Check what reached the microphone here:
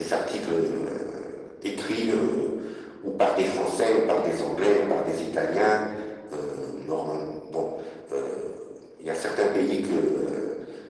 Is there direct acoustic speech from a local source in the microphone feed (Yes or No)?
No